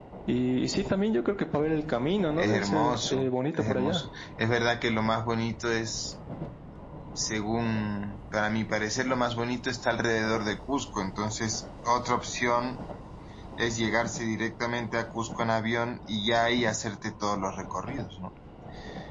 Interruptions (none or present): present